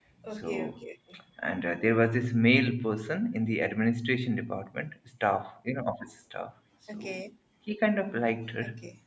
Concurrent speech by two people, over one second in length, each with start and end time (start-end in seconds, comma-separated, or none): none